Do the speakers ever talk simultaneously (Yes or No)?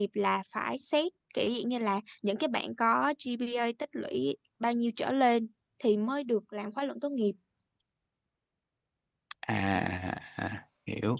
No